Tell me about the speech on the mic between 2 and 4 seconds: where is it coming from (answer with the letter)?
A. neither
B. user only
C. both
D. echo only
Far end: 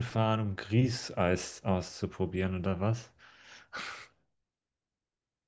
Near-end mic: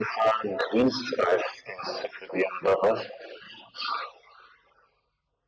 D